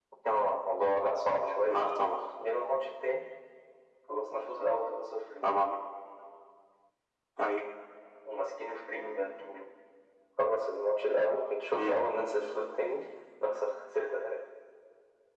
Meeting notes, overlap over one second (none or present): none